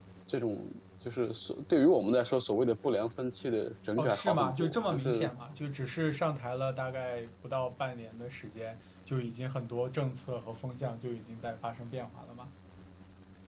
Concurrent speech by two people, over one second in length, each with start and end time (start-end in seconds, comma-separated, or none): 4.0-5.3